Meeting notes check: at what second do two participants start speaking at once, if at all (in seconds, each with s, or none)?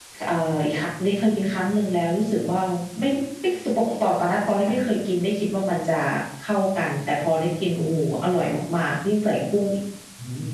none